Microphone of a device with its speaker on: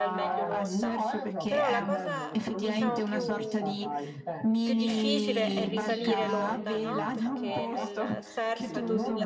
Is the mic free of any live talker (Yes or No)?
No